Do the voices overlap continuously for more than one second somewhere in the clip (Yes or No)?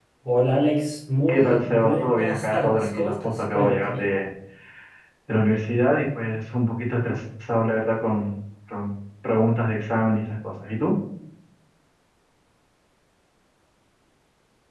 Yes